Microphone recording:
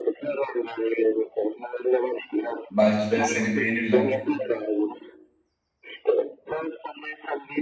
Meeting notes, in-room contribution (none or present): present